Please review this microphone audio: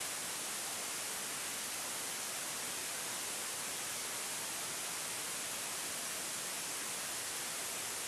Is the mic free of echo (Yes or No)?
Yes